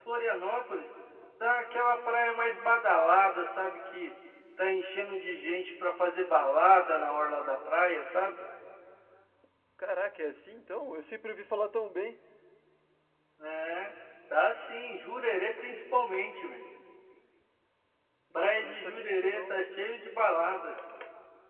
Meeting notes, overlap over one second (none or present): present